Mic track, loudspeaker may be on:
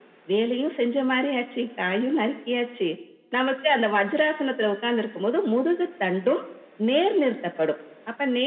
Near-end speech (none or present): none